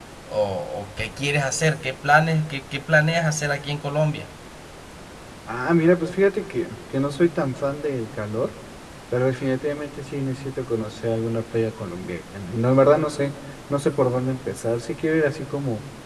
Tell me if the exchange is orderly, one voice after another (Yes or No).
Yes